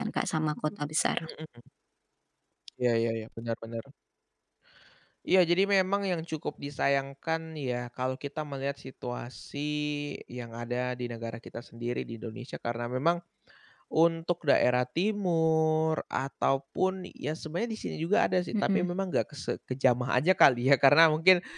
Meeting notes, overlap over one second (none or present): none